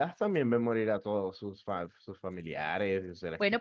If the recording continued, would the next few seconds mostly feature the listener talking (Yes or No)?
Yes